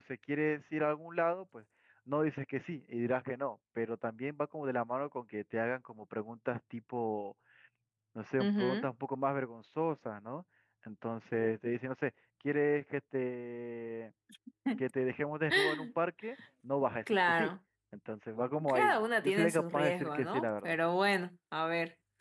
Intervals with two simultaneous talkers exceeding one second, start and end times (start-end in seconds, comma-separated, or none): 18.7-20.8